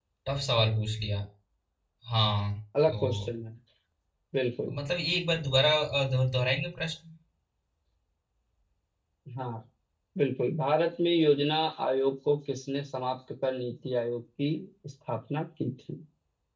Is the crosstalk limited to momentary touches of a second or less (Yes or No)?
Yes